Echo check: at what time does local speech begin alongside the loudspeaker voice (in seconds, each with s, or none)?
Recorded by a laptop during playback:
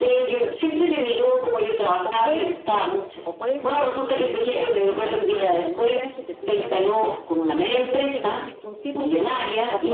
2.0 s